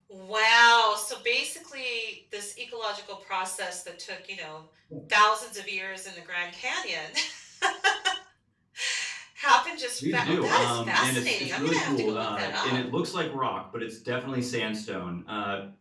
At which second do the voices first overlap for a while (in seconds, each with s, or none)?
10.1 s